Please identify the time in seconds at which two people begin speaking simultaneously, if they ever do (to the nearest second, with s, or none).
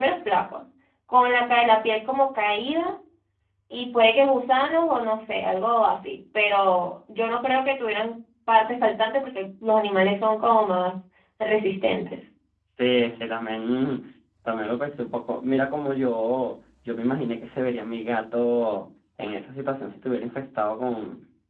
none